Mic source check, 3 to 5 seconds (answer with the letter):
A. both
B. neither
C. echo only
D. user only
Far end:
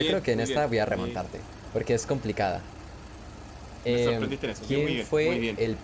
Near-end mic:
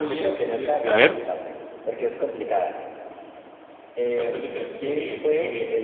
C